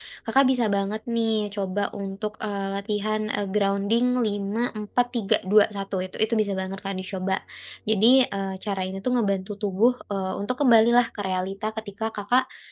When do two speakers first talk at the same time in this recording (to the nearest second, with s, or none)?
none